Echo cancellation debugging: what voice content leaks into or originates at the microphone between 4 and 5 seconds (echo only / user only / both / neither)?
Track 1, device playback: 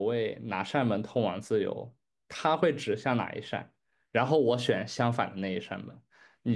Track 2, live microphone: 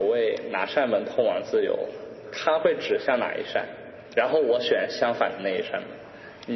echo only